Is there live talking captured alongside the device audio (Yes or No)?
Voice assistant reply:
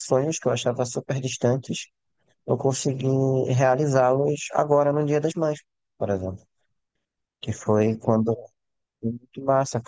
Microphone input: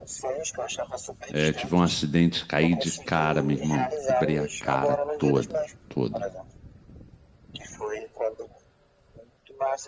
Yes